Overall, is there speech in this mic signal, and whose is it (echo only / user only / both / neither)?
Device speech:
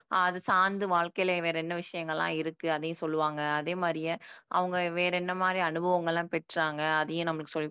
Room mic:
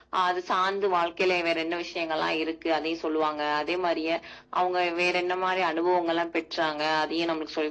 echo only